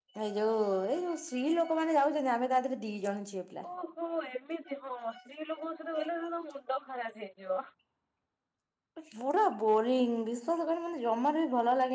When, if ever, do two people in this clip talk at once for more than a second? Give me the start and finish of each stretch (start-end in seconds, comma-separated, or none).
none